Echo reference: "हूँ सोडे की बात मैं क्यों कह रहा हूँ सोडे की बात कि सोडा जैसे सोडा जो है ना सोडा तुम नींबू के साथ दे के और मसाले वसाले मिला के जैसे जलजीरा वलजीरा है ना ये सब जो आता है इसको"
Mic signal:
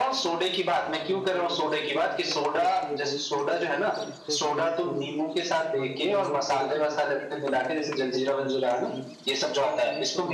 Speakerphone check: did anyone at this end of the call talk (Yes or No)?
Yes